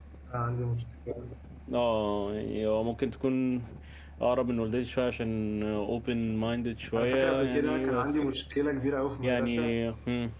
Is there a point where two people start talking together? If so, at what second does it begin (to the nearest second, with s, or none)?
7 s